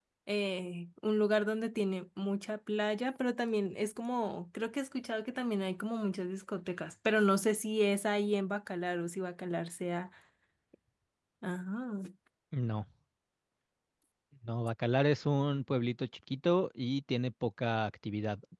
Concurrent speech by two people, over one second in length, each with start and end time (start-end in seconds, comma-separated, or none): none